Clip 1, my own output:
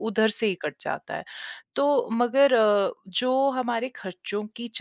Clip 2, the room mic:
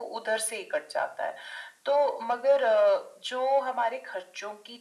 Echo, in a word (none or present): present